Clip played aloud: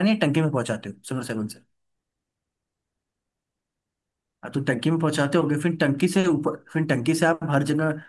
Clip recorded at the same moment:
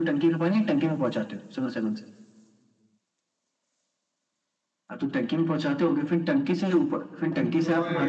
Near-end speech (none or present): present